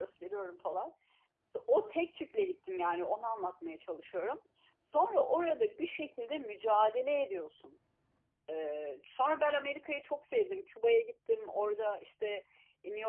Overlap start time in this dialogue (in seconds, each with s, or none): none